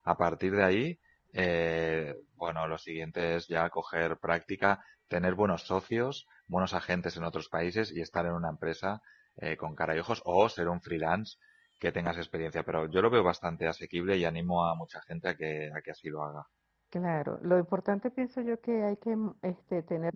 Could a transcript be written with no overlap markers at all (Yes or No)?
Yes